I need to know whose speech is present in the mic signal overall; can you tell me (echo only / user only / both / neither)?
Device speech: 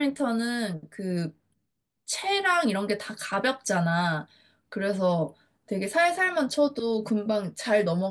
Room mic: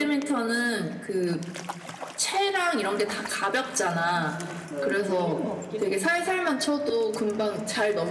both